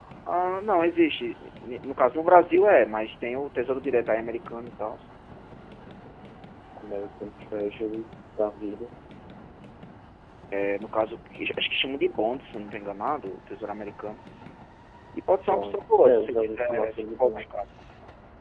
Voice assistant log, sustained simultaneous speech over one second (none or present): present